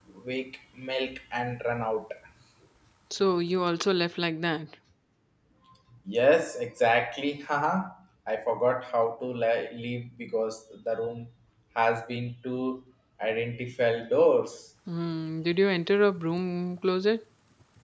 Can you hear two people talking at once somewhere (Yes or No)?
No